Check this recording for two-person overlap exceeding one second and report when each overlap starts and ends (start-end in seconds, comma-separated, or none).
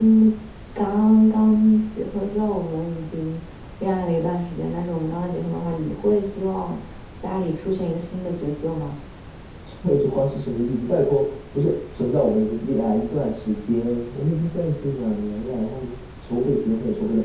none